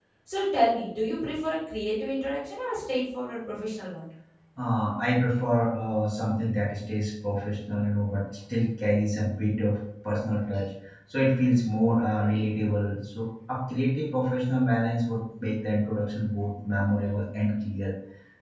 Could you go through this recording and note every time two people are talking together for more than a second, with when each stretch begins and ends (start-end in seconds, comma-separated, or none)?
none